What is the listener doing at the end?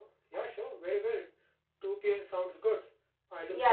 taking over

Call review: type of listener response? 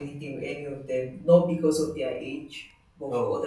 taking over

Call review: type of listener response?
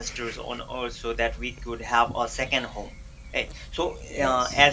listening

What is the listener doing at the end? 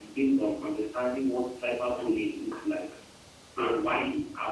listening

